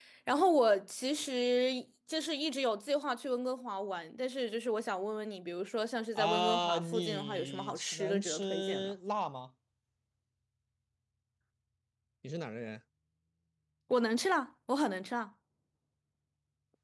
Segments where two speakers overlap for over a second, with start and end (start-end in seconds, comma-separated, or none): 6.2-8.9